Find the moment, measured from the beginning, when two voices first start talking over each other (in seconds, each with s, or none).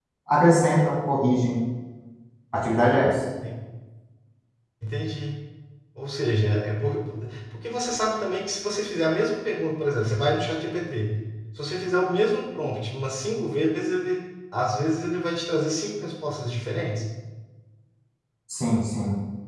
none